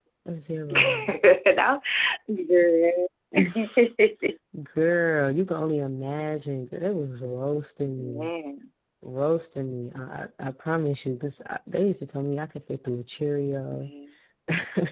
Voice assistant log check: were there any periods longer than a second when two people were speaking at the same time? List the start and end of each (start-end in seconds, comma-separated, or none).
none